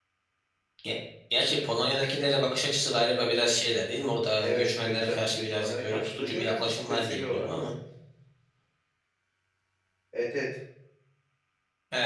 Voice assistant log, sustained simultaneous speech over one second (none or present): present